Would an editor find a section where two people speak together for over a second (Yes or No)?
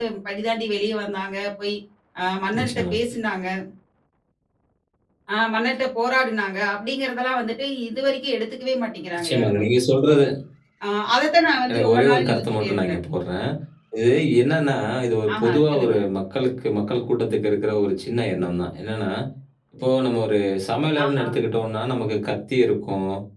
Yes